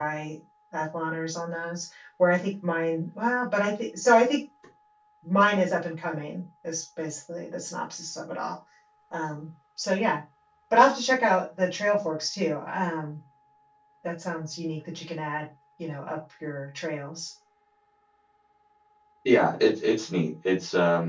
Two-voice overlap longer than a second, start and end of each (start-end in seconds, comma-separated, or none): none